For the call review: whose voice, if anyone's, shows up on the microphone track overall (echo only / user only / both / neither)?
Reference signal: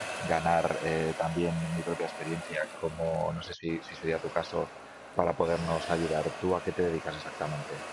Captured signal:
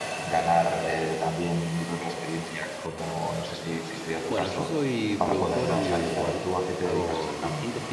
both